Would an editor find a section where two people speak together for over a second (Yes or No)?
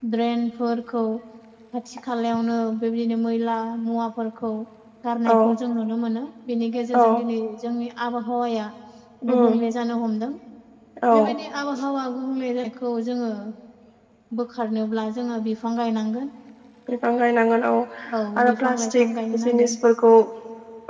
Yes